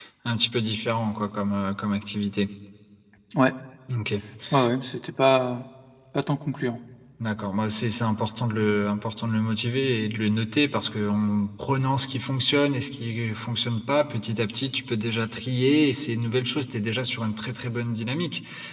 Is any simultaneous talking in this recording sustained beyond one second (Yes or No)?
No